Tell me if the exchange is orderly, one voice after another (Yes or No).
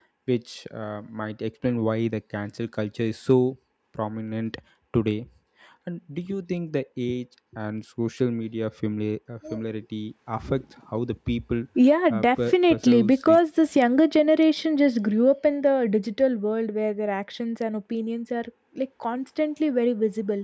No